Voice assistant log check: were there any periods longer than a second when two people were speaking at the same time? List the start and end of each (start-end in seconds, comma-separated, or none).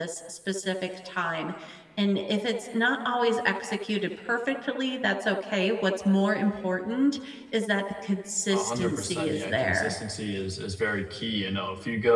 8.5-9.9